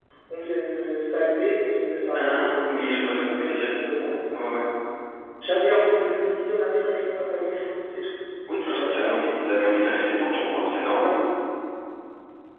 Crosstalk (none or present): present